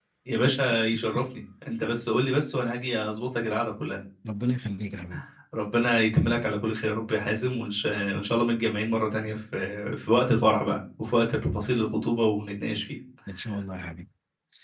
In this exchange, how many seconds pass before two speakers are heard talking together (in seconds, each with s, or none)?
none